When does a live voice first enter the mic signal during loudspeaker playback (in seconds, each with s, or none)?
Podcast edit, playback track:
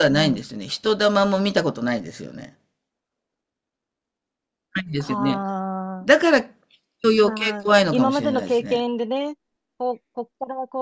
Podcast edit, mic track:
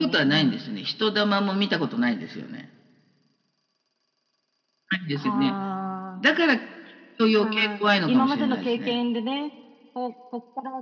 none